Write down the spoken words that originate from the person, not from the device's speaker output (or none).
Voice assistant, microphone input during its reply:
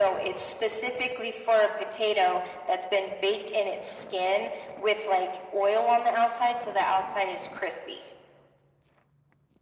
none